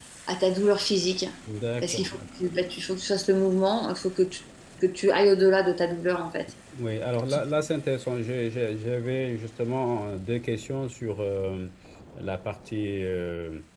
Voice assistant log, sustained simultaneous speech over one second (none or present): none